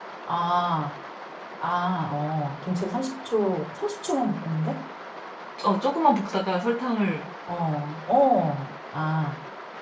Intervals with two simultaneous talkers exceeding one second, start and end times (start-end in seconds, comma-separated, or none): none